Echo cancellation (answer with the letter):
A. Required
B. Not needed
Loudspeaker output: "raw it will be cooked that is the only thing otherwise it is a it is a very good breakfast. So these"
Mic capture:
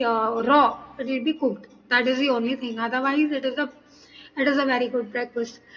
A